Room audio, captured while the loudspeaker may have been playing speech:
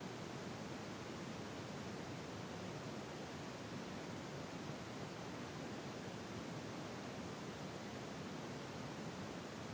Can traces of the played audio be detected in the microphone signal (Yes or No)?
No